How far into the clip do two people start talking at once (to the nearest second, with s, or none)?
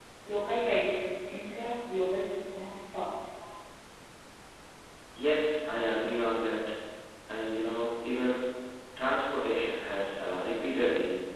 none